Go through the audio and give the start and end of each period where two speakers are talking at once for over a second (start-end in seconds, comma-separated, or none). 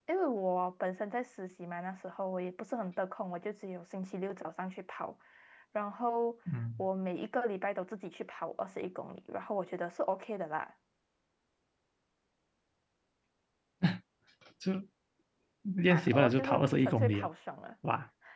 15.9-17.3